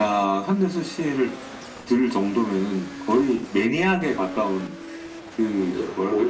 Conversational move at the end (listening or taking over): taking over